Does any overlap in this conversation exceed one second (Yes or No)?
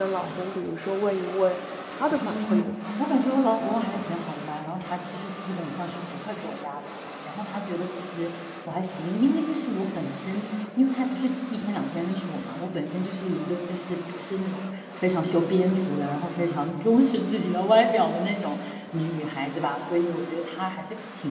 No